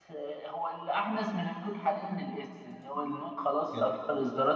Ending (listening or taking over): listening